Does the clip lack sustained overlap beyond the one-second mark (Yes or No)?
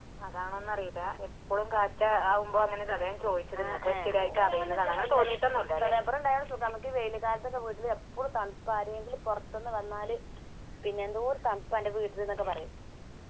No